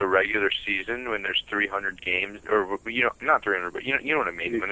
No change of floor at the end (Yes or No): Yes